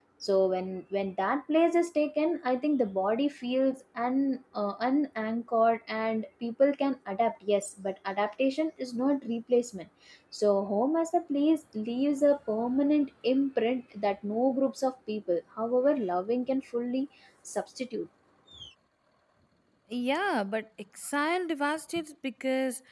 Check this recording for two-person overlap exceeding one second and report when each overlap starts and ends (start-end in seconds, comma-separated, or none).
none